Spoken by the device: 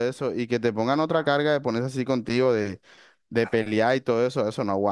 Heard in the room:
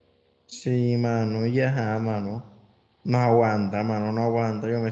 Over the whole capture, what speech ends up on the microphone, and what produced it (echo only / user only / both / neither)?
user only